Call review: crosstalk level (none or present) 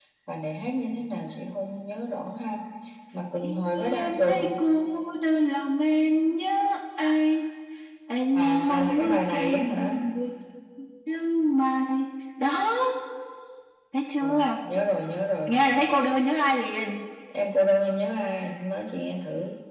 present